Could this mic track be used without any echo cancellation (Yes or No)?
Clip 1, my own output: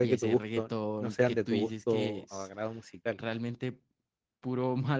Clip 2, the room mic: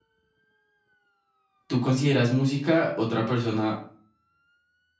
Yes